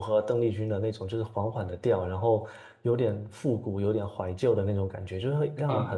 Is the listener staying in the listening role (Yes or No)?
No